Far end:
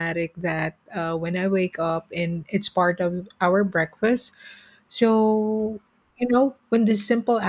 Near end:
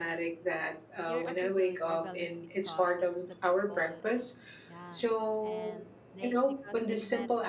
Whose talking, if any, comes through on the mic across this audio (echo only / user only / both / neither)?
both